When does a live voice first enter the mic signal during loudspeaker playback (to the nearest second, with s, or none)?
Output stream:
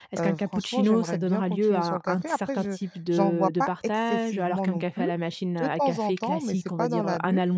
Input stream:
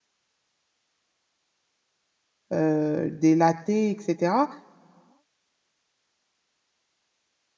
3 s